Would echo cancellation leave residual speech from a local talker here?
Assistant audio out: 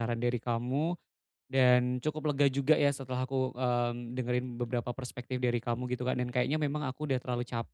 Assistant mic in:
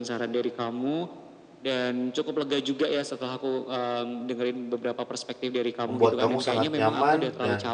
Yes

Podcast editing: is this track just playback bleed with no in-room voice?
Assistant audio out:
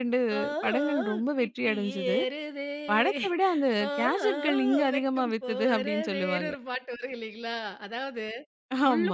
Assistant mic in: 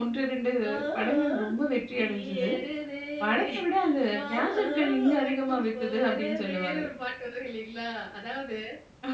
Yes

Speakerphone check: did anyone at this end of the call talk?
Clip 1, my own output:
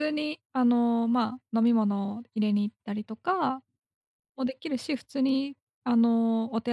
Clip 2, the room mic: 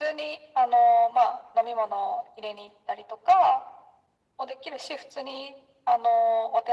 No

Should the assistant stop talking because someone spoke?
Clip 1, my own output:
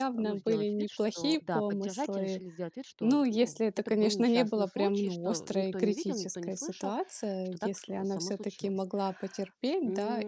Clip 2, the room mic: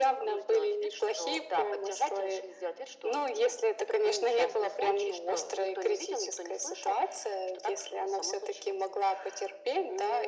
No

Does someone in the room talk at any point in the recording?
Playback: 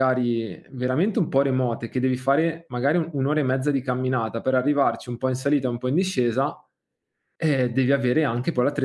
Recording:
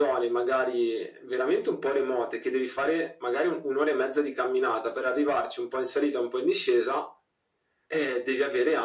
No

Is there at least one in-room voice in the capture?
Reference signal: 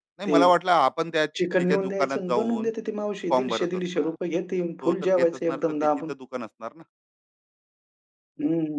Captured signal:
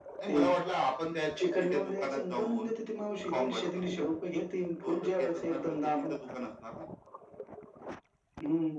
No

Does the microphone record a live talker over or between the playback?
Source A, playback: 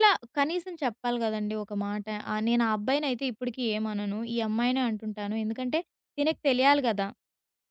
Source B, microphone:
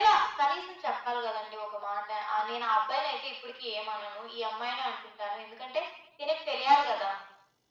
No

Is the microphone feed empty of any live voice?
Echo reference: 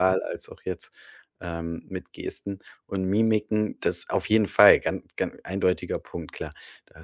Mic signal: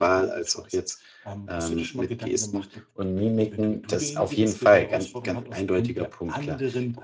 No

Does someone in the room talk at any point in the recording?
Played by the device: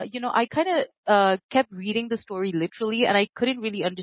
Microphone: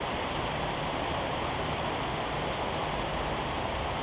No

